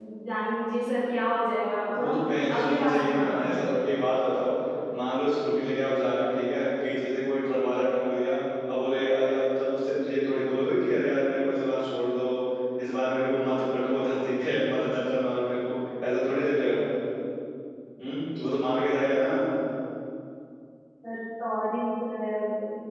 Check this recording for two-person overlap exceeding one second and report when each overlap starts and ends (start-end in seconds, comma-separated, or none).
2.0-3.7